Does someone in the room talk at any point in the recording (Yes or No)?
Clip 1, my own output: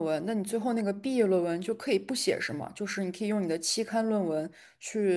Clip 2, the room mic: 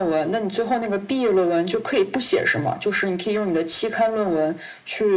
No